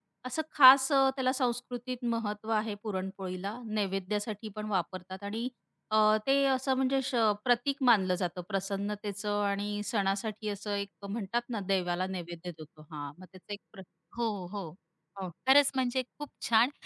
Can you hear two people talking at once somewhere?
No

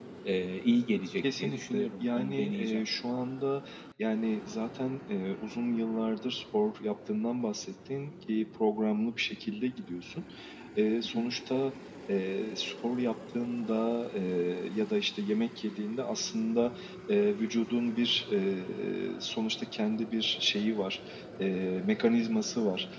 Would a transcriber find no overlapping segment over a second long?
No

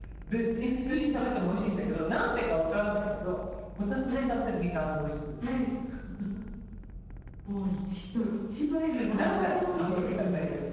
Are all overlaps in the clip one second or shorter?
No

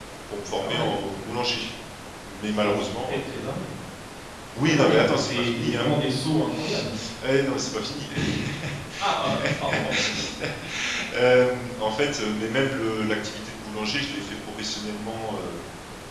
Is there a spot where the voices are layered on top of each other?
Yes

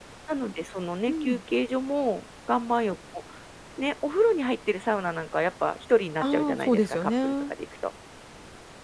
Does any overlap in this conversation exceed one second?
Yes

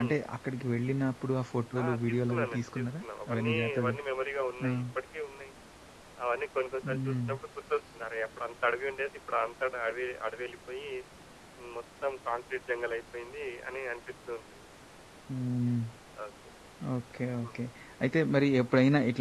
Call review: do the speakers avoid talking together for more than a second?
No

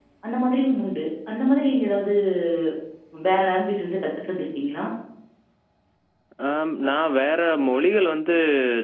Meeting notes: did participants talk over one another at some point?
No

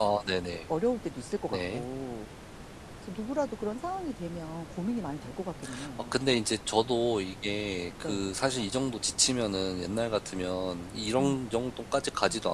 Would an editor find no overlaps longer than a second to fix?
Yes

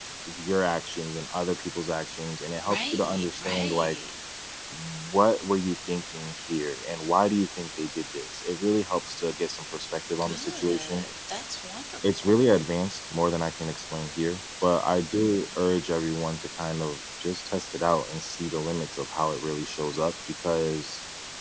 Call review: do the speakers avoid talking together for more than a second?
No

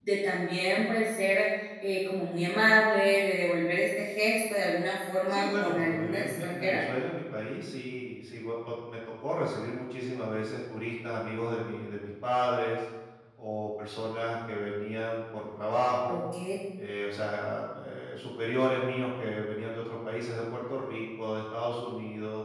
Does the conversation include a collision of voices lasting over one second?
Yes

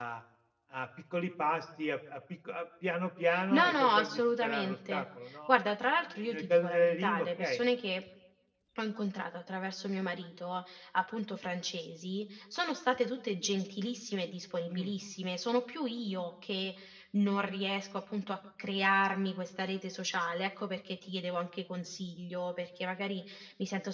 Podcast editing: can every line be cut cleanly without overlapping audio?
No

